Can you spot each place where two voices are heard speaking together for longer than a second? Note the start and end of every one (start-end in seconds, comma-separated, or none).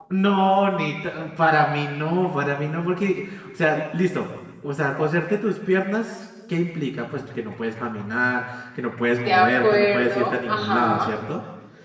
9.2-11.1